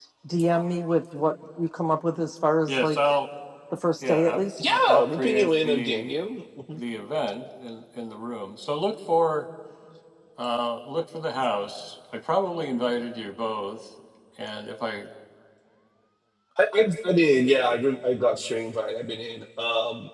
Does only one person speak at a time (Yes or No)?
No